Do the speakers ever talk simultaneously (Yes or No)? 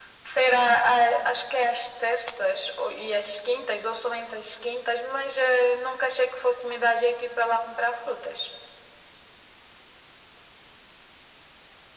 No